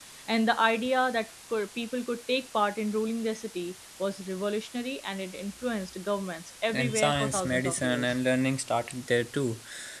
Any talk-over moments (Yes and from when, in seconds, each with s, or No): Yes, from 6.7 s